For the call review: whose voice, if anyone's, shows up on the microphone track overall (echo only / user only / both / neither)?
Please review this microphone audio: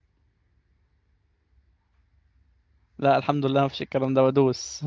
user only